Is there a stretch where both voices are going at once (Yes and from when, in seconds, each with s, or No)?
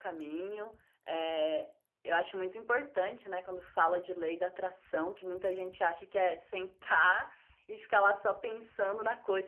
No